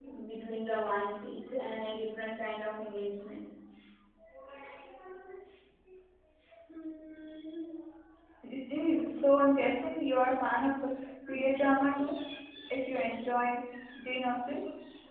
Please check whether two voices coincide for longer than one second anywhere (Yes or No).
No